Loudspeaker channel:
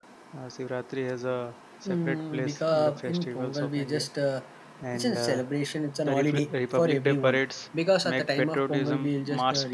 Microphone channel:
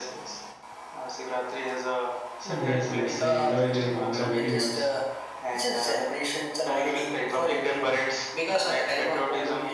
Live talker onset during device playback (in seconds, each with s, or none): 2.5 s